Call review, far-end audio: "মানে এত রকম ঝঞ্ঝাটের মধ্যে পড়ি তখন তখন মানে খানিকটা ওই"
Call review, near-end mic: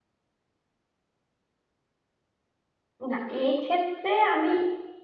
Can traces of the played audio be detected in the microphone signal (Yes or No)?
No